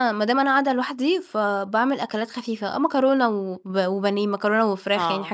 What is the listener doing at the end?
listening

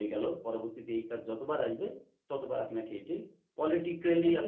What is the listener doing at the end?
listening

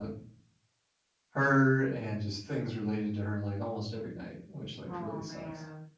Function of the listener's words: taking over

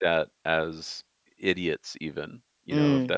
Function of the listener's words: listening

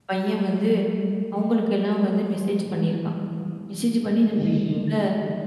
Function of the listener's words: listening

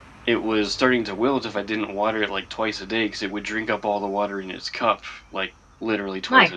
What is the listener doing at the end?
taking over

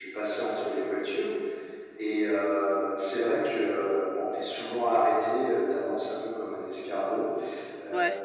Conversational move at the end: listening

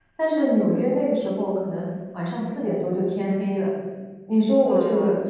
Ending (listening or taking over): listening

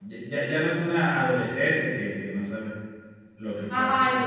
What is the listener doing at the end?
taking over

